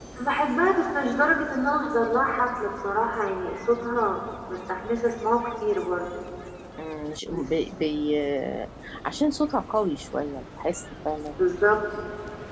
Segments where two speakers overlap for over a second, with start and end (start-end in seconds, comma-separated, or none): none